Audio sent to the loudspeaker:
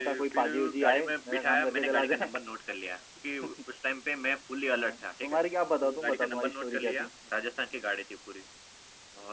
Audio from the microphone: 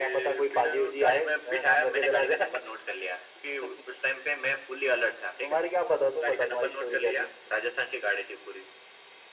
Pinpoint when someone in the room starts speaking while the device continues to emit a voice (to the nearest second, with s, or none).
none